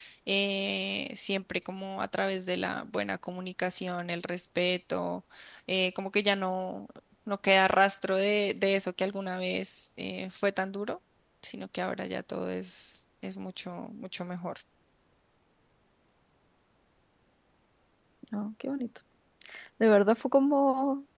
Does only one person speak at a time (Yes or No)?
Yes